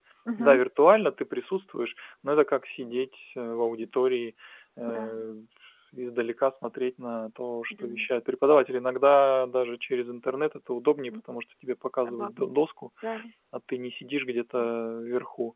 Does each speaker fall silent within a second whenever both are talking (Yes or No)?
Yes